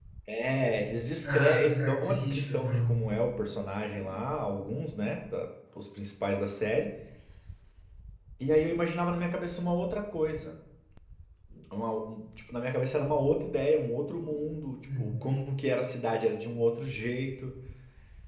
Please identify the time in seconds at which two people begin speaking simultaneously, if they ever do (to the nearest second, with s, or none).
1 s